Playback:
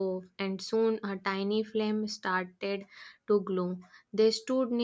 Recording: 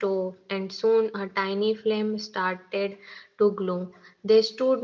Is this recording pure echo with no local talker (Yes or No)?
Yes